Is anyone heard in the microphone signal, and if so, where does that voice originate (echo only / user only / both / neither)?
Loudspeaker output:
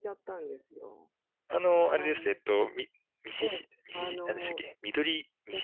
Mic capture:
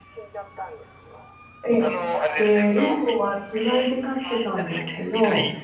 both